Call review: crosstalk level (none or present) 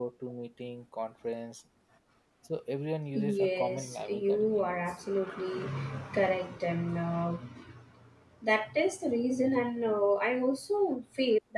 present